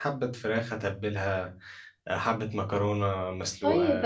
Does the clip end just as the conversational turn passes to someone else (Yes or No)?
Yes